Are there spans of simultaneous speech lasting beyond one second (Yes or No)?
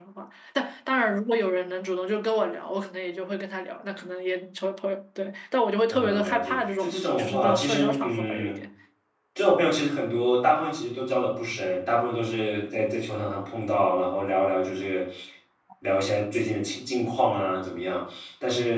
Yes